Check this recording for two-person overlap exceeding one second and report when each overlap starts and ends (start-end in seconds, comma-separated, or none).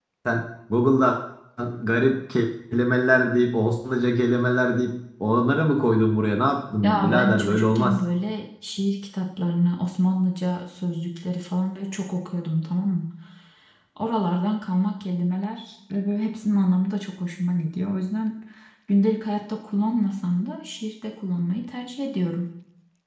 6.8-8.0